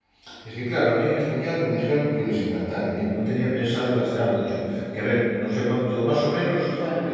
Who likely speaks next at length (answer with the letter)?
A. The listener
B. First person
B